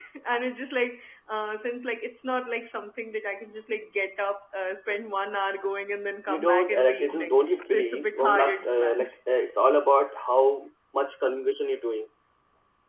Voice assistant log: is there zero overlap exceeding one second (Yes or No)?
No